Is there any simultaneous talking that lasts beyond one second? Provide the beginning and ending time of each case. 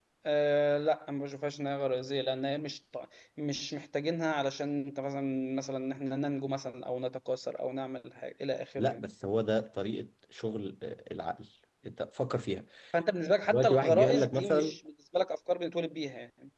13.5-14.8

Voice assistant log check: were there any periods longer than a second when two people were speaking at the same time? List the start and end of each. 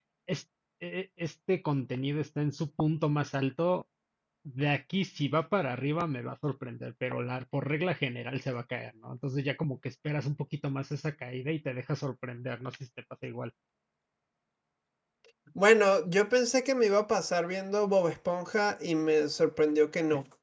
none

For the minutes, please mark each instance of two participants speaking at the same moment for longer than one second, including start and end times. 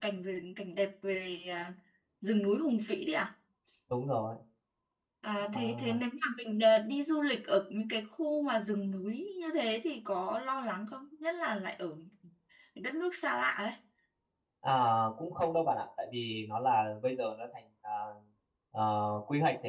none

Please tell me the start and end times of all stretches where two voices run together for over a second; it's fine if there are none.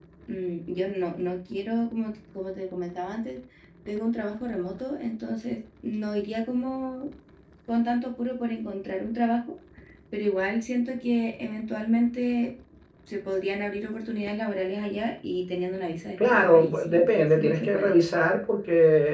16.3-17.9

